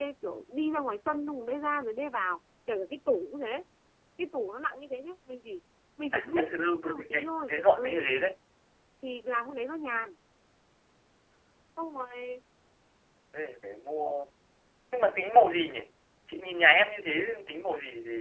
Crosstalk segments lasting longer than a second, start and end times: 6.1-8.1

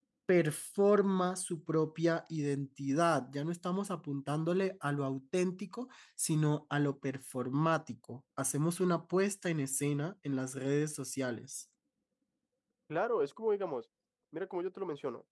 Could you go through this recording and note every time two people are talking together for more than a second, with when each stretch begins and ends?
none

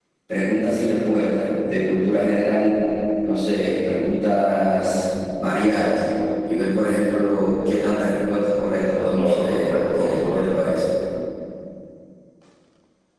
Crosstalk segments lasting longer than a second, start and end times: 9.1-10.6

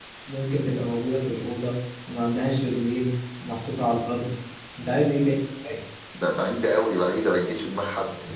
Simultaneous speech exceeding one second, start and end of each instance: none

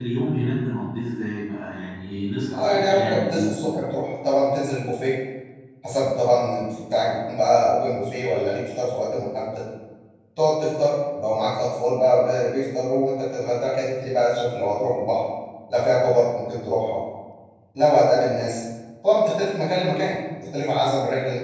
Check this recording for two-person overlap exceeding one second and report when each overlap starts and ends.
2.5-3.8

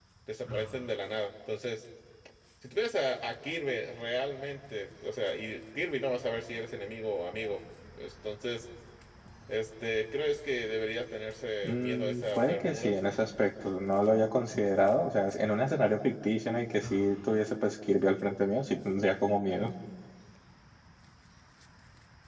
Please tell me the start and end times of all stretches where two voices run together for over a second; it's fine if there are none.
11.6-12.9

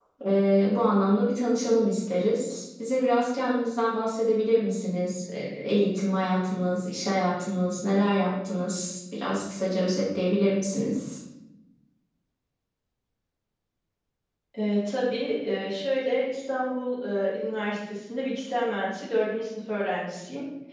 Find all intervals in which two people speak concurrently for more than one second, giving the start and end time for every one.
none

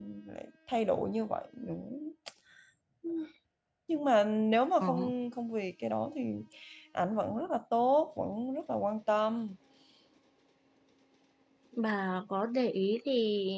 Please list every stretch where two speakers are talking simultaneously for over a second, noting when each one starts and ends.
none

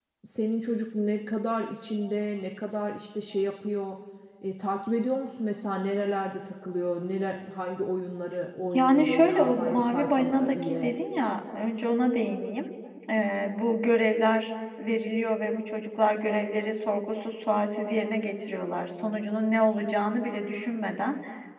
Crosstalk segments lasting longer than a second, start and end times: 8.7-10.9

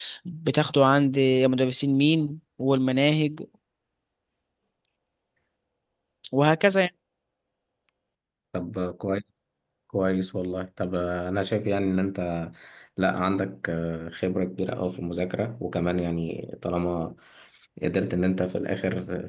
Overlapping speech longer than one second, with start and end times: none

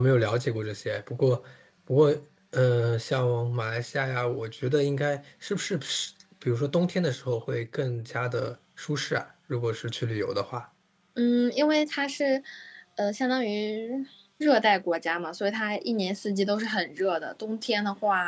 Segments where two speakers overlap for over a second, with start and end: none

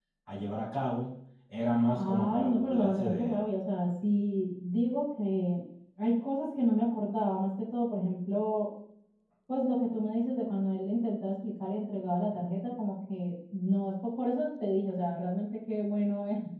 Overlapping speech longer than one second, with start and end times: 2.0-3.4

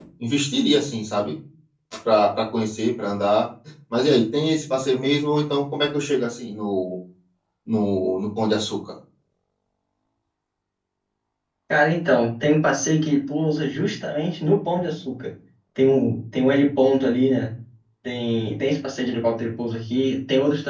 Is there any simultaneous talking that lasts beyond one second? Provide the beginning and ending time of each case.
none

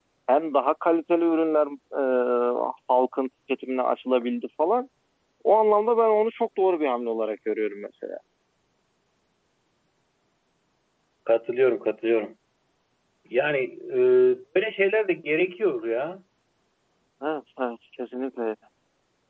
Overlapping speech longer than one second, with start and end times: none

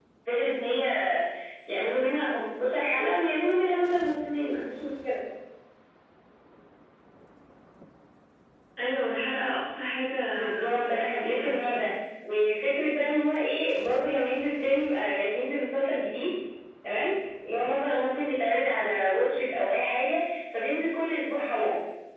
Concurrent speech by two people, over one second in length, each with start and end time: 10.5-11.9

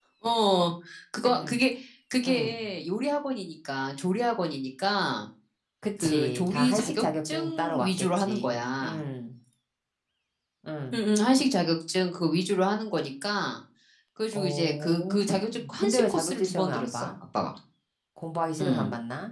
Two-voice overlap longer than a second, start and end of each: 6.0-9.0, 14.3-17.1

